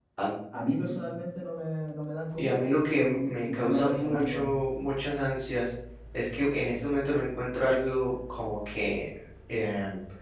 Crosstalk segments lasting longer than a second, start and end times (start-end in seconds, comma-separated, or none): 2.4-4.5